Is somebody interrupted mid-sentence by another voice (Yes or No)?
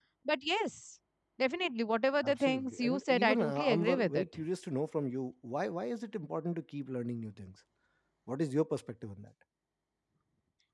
Yes